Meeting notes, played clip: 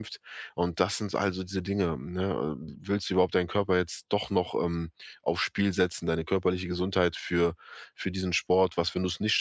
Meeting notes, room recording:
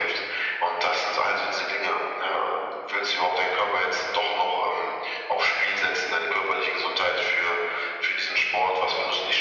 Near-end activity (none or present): none